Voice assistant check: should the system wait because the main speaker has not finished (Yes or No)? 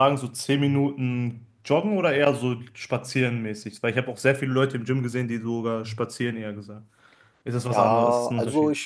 No